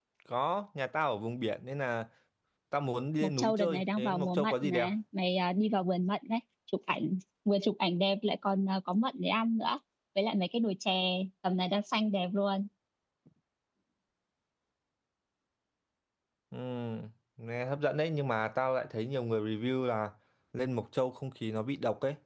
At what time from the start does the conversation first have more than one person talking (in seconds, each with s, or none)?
3.2 s